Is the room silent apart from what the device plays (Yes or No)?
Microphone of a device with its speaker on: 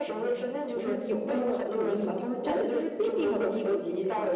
No